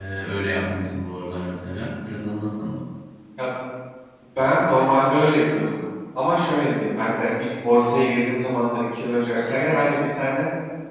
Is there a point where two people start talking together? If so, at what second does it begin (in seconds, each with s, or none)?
none